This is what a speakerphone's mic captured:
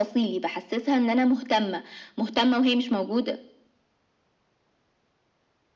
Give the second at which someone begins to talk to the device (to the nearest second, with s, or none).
none